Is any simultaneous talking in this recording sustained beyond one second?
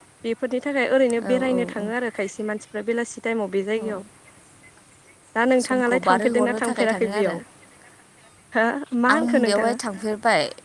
Yes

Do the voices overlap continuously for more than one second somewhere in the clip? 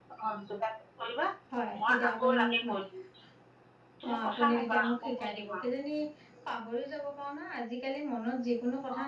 Yes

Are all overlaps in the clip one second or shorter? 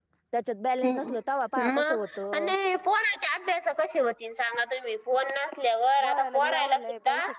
No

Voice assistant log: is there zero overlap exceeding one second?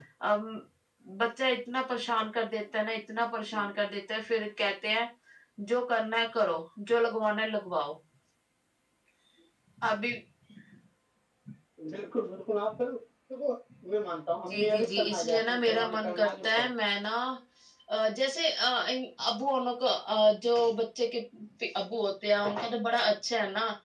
No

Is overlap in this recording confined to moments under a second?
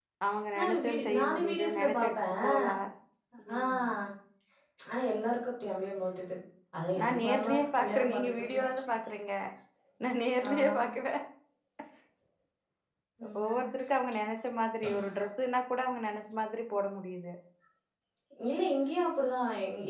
No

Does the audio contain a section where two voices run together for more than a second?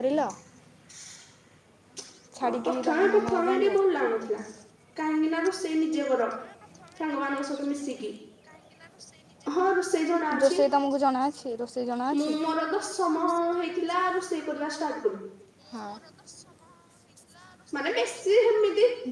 Yes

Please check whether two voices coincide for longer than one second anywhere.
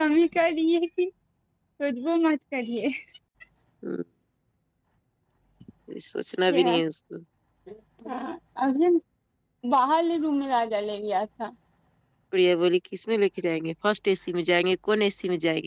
No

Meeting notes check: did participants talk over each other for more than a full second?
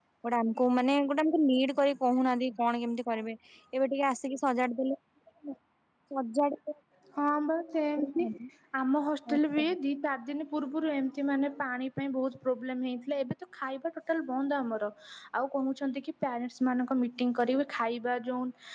No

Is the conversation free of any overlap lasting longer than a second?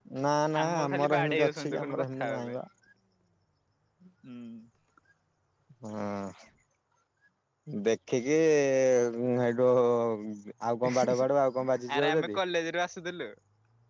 No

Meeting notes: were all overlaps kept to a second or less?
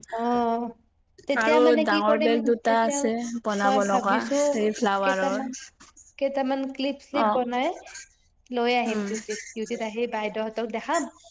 No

